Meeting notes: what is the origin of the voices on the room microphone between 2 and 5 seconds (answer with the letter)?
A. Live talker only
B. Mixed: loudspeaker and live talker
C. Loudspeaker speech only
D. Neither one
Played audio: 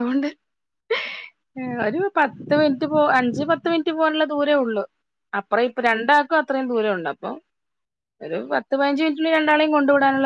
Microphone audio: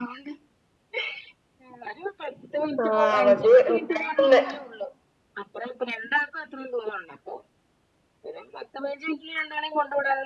B